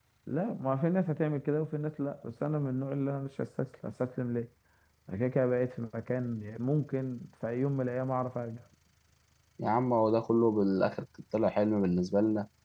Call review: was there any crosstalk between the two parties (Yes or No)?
No